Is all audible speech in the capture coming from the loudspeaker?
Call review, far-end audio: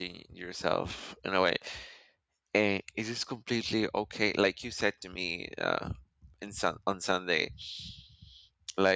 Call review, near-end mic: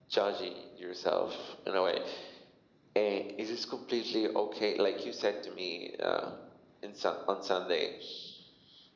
Yes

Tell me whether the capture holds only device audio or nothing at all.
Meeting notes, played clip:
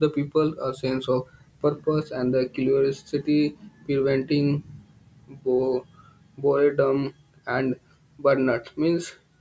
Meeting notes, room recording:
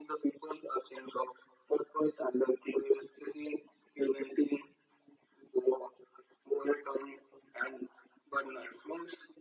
Yes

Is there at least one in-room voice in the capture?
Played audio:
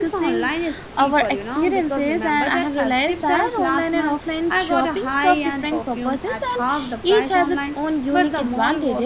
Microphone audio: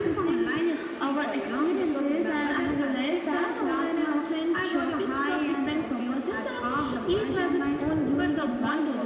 No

